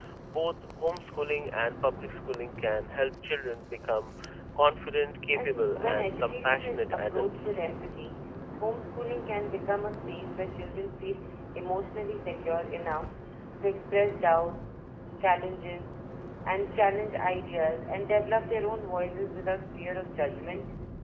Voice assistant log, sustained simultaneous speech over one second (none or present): present